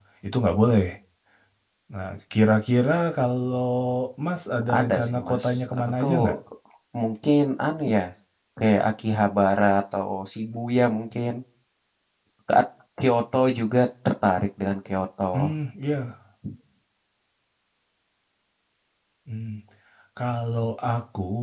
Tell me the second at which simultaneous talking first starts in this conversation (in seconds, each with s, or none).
4.8 s